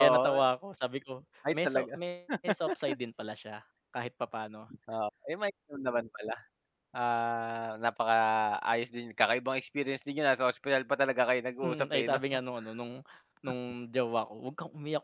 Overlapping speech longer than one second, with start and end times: none

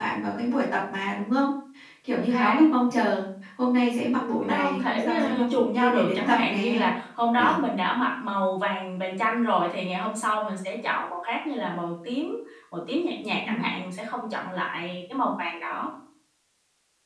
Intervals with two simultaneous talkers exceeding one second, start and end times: 4.2-6.8

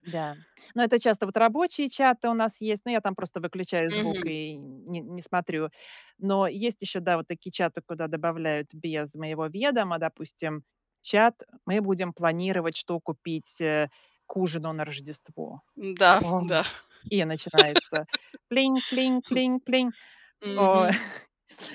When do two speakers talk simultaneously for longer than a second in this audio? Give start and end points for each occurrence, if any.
none

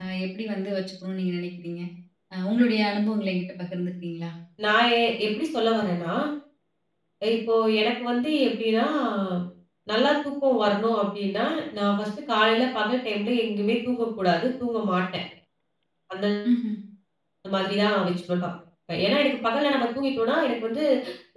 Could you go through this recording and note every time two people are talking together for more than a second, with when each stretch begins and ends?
none

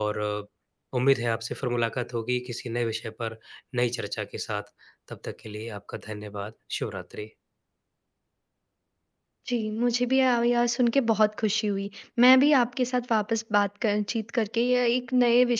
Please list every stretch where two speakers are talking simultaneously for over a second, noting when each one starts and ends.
none

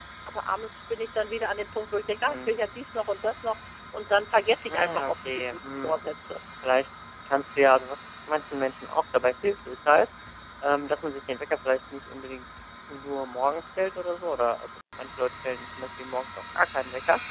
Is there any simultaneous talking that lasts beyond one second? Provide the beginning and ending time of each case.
4.7-6.0

